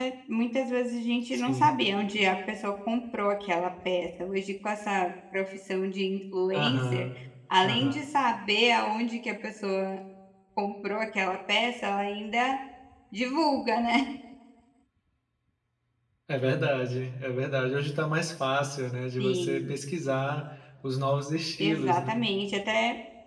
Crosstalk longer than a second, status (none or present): none